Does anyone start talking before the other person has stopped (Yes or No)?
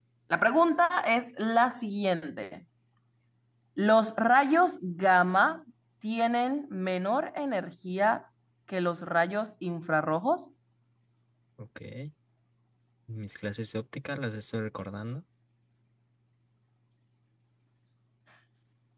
No